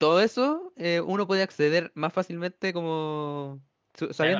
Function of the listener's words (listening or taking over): taking over